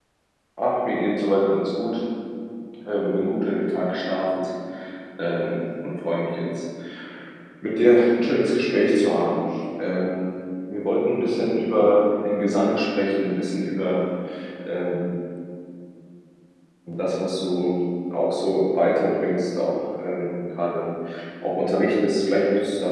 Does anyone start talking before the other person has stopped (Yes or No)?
No